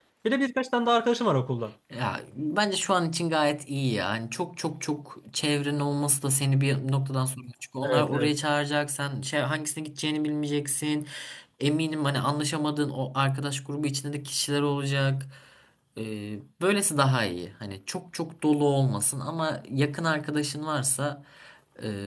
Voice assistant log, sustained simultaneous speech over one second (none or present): none